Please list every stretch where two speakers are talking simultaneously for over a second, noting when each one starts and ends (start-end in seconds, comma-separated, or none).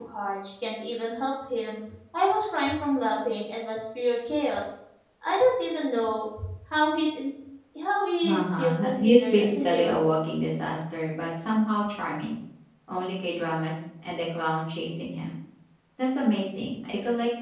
8.2-10.1